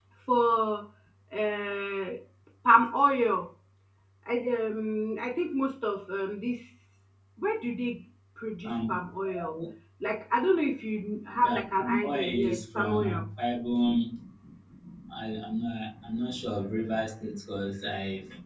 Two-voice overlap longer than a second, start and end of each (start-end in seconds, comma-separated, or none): 11.4-13.0